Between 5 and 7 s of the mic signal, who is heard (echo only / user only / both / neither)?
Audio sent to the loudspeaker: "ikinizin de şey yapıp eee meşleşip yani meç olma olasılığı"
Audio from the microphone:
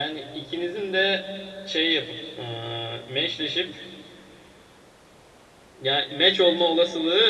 echo only